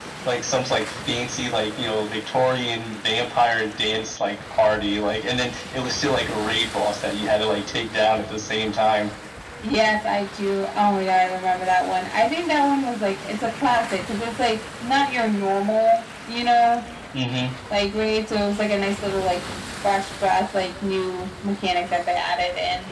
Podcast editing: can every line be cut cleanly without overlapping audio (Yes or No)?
Yes